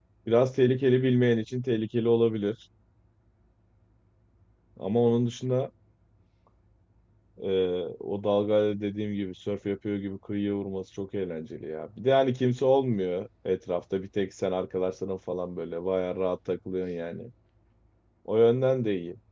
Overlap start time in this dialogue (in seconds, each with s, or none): none